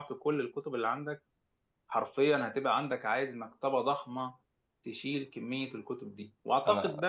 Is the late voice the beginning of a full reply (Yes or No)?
No